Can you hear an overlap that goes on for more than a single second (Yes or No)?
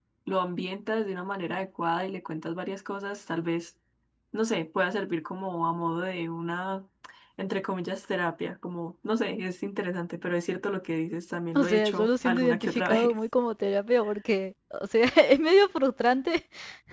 Yes